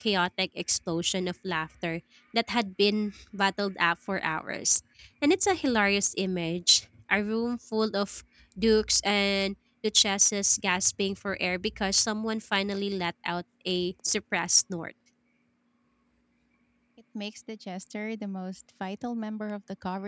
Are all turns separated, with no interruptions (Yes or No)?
Yes